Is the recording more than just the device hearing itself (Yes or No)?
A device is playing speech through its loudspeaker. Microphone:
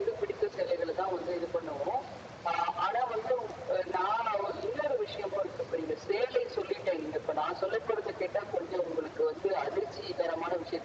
No